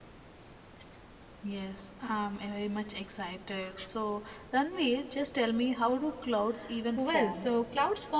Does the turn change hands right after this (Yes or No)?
Yes